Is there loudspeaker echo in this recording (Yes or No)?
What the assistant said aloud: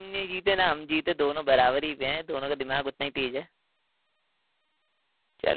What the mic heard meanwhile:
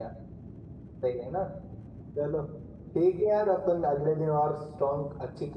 No